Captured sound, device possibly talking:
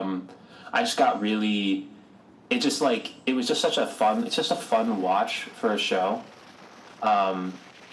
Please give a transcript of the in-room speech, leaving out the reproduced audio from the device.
none

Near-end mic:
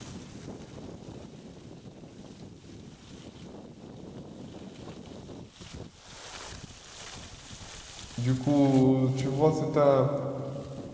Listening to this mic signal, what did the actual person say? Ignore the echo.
Du coup, tu vois, c'est un,

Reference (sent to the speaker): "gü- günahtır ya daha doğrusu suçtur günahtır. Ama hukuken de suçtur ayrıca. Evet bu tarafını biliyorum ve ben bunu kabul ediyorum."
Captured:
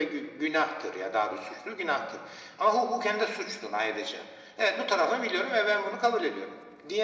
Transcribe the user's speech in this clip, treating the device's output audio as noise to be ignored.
none

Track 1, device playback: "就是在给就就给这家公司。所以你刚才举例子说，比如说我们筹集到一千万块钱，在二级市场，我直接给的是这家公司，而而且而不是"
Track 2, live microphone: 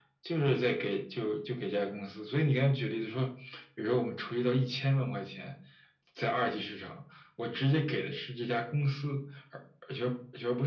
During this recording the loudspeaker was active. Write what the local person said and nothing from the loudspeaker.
none

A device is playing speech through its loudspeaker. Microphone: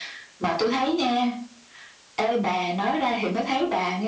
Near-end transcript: none

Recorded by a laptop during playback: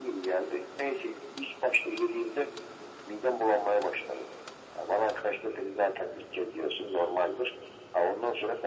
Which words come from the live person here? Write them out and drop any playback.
none

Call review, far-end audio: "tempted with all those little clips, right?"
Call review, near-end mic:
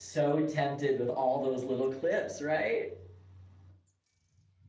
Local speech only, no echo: none

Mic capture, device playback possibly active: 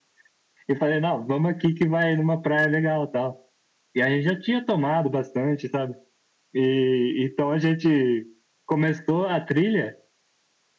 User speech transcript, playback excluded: none

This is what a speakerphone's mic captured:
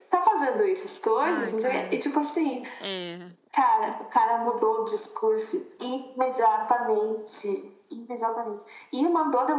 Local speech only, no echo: Ai, cara. É.

